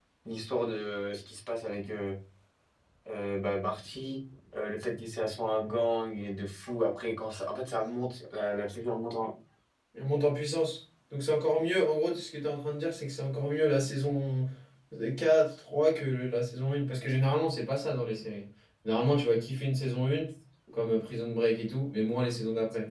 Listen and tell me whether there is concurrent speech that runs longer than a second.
No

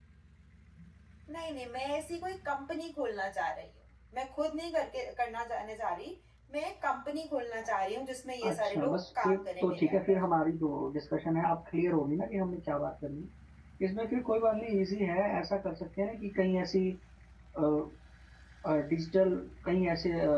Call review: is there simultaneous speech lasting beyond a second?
Yes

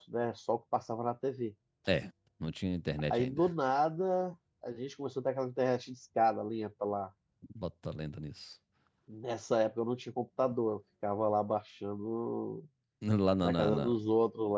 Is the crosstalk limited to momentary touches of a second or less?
Yes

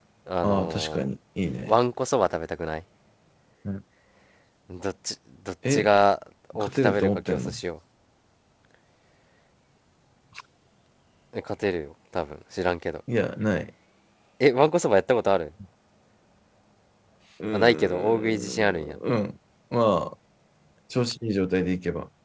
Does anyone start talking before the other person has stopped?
Yes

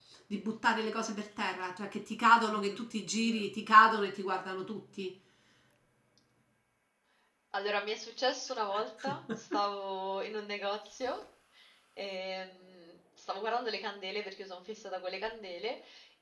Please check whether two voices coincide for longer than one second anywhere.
No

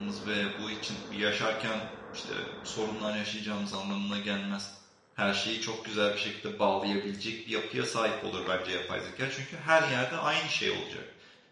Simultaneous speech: No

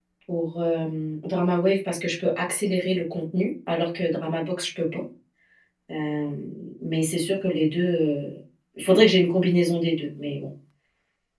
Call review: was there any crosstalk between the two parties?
No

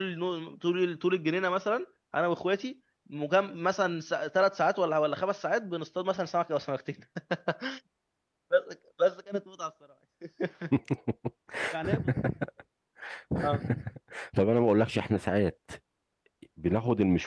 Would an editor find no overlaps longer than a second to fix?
Yes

